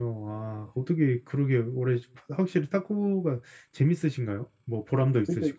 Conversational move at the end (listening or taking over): taking over